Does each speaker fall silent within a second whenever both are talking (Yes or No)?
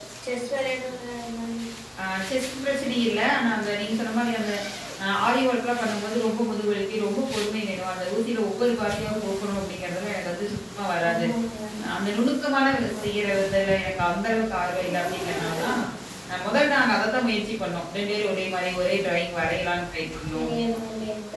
Yes